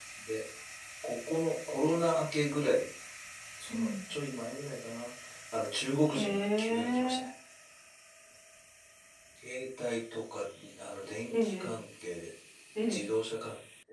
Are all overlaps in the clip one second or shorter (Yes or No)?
No